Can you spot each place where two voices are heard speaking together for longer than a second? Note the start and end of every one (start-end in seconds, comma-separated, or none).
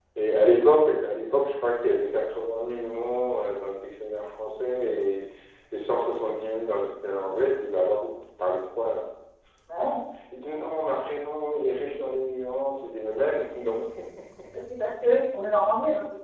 none